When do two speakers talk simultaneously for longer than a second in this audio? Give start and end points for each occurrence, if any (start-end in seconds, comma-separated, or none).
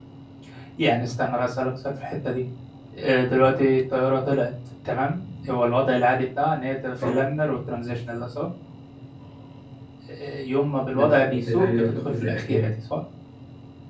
10.9-12.7